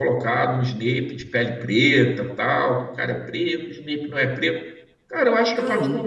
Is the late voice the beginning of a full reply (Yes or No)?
No